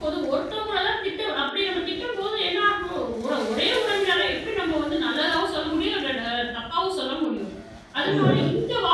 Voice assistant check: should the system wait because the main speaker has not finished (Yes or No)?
Yes